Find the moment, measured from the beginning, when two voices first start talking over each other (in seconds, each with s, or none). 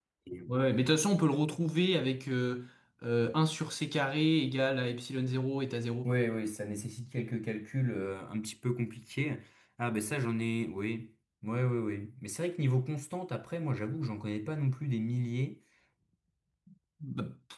none